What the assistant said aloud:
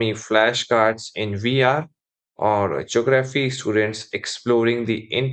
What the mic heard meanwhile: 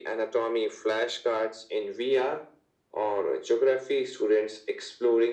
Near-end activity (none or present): none